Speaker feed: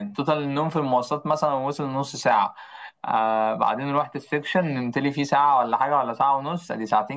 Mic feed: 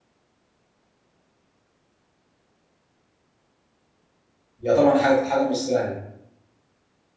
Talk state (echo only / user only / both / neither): user only